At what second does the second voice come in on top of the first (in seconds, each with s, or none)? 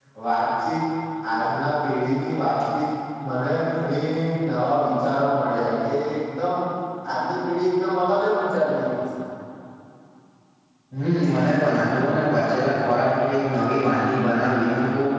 none